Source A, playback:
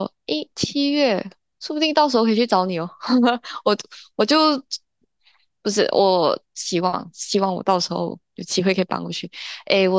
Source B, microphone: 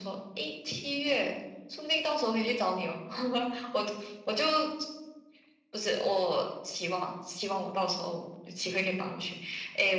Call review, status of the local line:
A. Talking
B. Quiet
B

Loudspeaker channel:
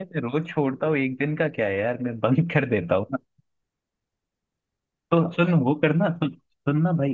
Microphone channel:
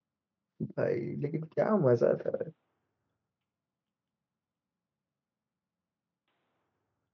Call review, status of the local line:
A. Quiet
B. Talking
B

